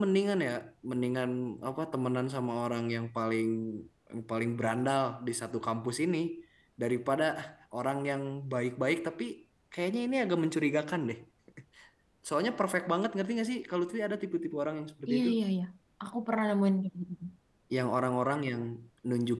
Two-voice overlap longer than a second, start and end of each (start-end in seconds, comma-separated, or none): none